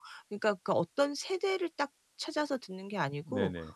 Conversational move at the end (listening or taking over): listening